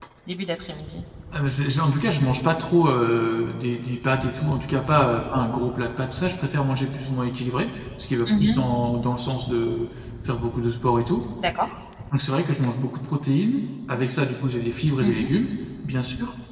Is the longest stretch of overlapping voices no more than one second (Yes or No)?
Yes